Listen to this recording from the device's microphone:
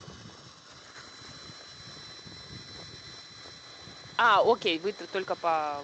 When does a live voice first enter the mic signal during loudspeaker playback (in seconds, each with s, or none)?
4.2 s